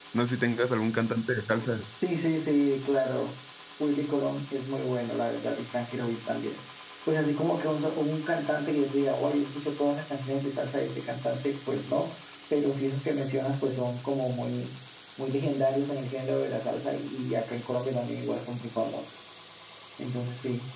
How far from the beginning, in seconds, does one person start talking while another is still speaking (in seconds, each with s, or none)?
none